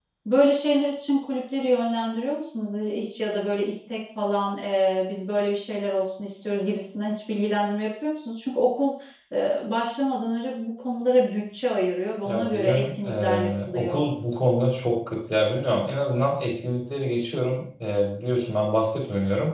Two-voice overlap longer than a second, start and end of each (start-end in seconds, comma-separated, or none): 12.2-14.1